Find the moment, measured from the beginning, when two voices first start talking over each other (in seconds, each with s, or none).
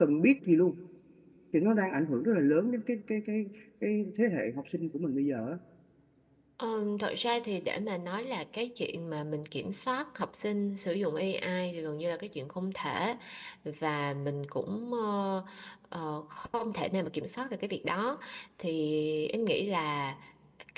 none